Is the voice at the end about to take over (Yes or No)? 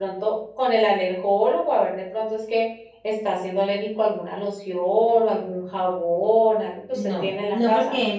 Yes